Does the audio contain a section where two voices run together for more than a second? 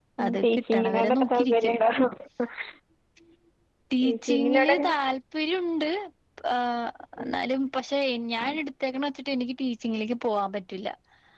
Yes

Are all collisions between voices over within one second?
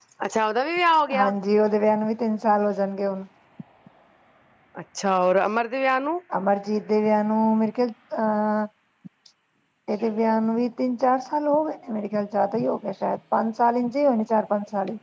Yes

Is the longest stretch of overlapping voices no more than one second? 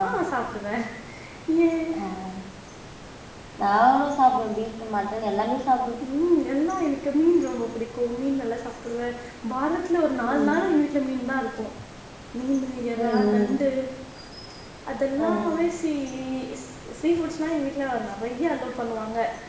Yes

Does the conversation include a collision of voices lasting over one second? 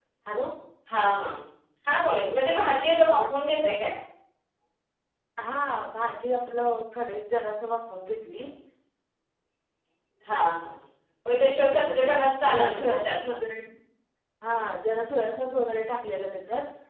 Yes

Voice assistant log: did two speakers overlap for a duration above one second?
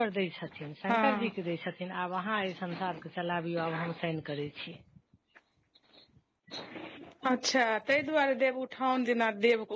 No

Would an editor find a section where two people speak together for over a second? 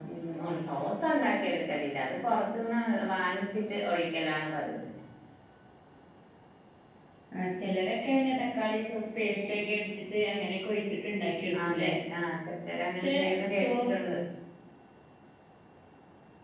No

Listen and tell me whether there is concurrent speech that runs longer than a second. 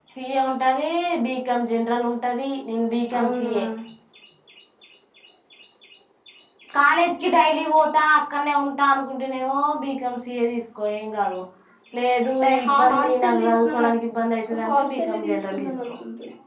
Yes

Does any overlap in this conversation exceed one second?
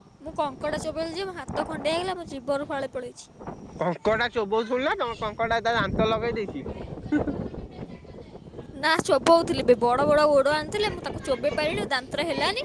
No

